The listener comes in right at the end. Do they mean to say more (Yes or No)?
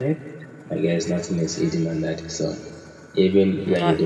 No